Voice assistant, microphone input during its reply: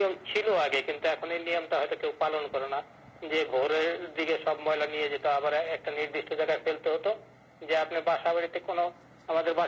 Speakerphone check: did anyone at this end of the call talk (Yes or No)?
No